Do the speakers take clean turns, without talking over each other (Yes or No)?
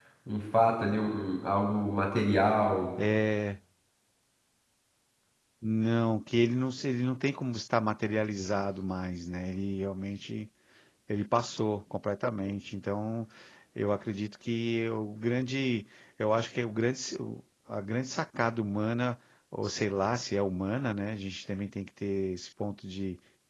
Yes